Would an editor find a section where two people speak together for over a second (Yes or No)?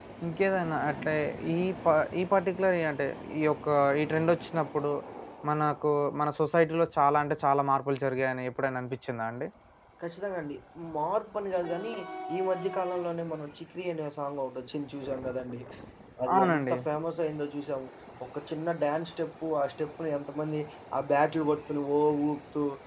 No